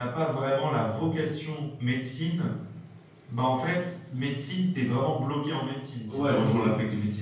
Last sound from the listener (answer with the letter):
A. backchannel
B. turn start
B